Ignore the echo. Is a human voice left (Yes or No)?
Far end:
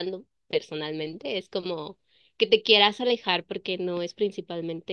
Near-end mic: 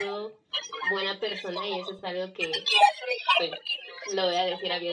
Yes